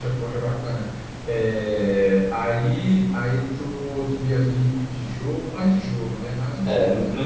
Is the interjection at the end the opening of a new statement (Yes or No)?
Yes